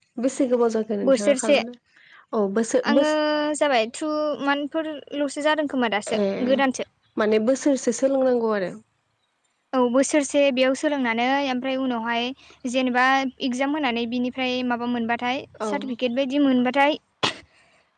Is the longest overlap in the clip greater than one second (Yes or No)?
No